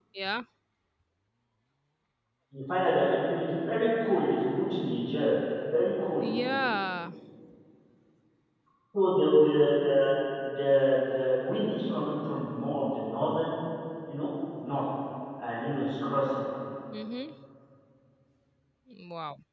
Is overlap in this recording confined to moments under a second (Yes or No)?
Yes